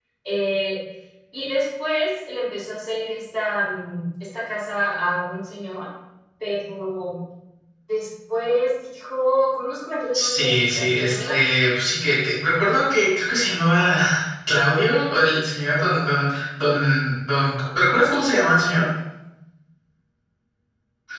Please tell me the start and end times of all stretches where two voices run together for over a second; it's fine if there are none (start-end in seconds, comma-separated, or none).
10.1-11.4